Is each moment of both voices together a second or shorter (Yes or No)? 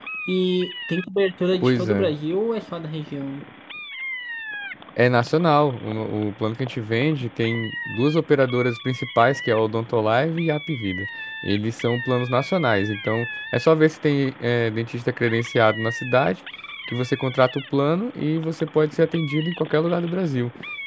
Yes